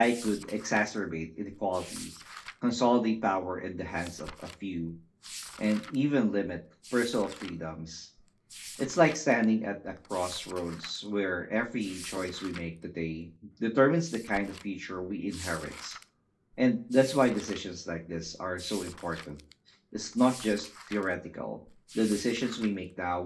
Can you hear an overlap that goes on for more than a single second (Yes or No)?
No